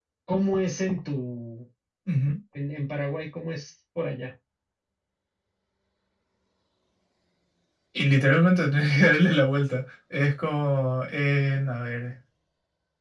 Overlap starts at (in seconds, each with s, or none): none